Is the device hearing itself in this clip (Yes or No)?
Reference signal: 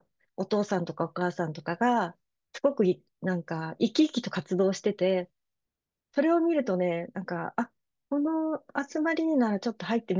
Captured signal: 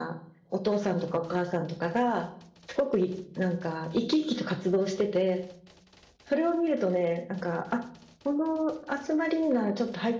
Yes